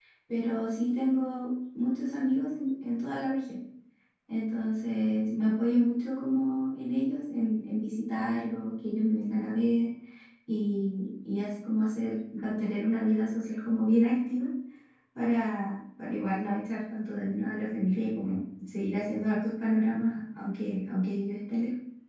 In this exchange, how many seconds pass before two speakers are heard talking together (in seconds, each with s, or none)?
none